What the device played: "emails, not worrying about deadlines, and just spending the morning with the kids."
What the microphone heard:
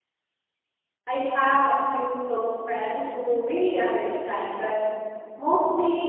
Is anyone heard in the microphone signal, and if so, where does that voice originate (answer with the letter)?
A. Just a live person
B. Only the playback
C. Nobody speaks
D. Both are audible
A